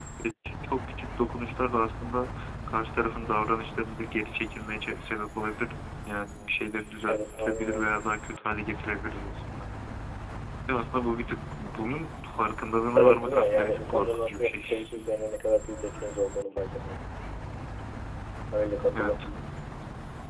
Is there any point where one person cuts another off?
Yes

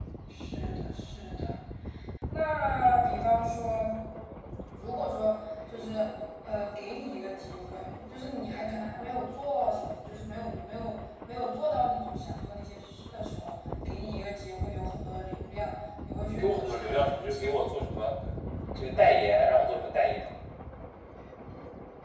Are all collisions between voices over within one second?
No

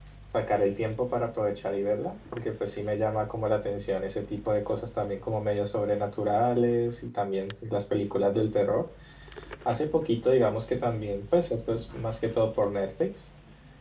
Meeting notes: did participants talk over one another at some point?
No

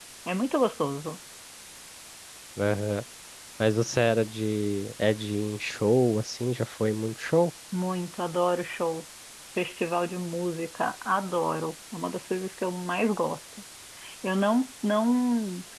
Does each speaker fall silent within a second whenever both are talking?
Yes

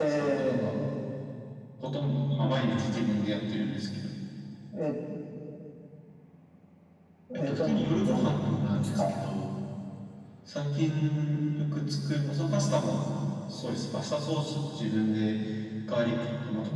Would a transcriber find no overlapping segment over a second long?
No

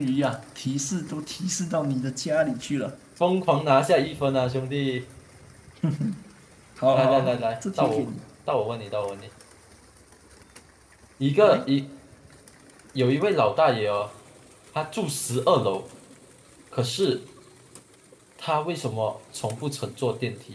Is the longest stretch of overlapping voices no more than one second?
No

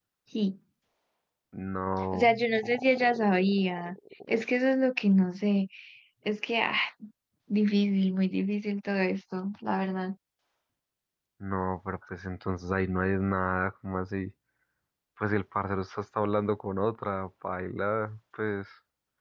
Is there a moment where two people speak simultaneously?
Yes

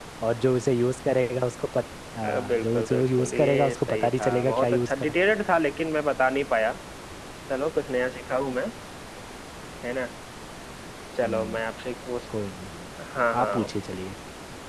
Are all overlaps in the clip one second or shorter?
No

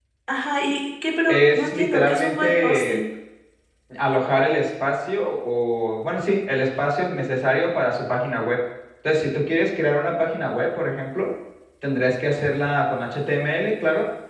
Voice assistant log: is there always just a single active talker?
No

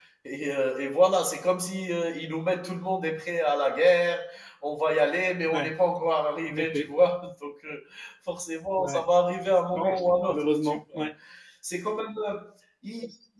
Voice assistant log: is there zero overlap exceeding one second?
No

